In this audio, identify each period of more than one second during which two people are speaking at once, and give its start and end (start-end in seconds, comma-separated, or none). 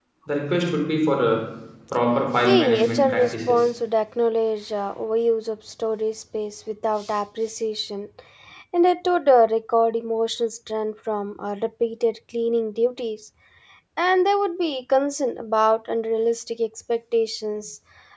2.4-3.7